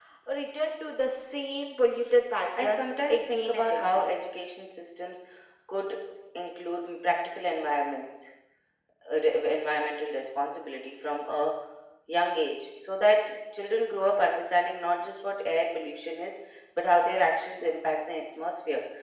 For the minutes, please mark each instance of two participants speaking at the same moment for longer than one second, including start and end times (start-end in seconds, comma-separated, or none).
2.6-4.1